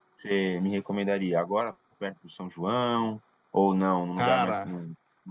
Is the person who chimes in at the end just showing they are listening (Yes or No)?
Yes